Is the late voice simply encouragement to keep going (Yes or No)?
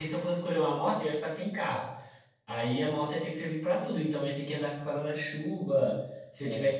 Yes